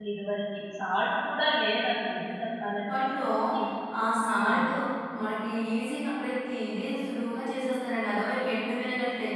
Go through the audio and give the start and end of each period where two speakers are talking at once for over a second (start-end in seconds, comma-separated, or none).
none